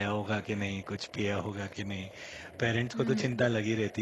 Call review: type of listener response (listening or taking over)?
listening